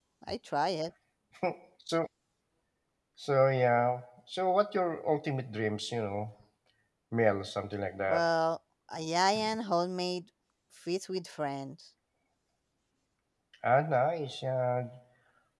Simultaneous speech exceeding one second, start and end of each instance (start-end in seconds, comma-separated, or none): none